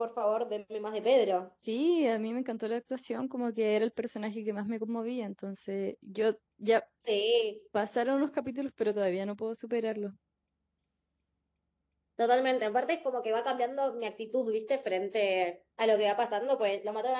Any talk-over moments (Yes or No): No